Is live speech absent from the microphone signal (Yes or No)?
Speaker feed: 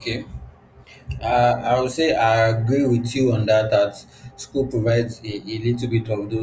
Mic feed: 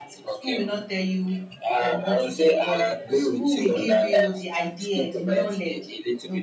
No